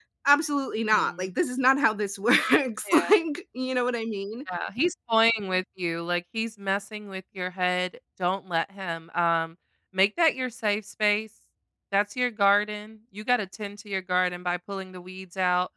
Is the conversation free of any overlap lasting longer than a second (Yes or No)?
Yes